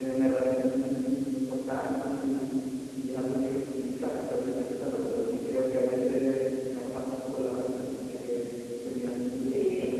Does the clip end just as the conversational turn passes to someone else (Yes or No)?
Yes